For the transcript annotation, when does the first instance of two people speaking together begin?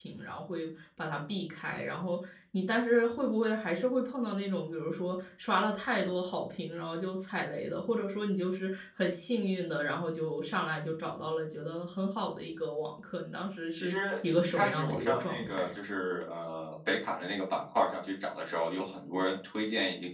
13.7 s

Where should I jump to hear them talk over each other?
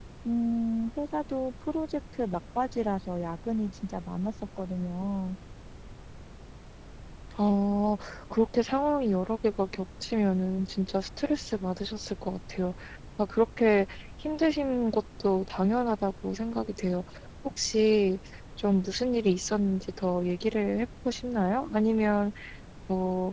none

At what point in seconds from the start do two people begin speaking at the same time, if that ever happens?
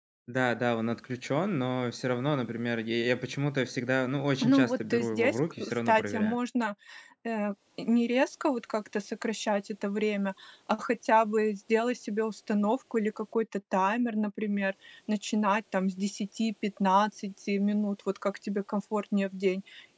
4.4 s

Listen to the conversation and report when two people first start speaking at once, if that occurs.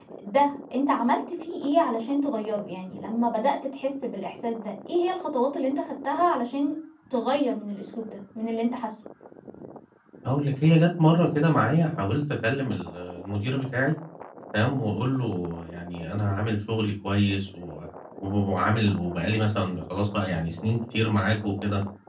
none

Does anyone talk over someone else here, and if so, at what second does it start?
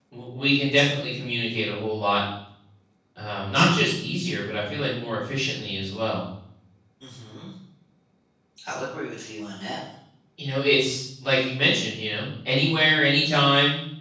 none

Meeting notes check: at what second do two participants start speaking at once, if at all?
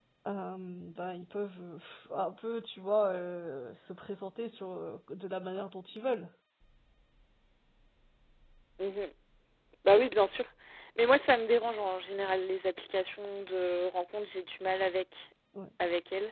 none

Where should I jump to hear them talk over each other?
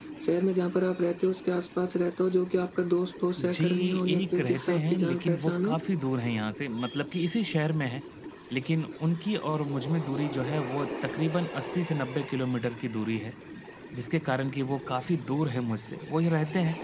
3.4 s

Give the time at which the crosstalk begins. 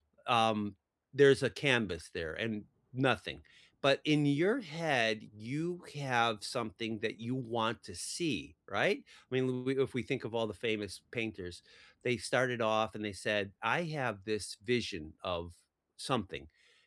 none

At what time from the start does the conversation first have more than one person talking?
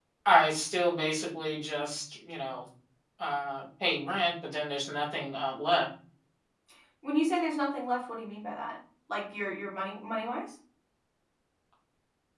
none

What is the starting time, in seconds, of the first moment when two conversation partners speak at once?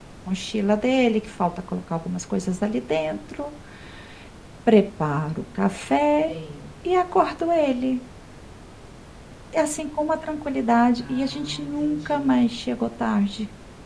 10.9 s

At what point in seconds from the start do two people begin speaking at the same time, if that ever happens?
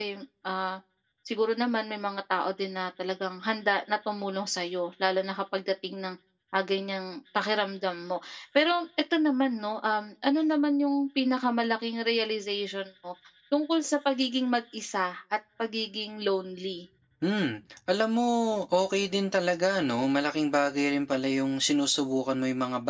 none

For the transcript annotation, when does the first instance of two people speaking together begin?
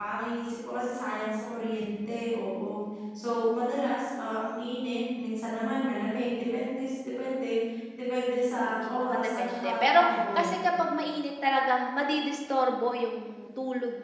8.3 s

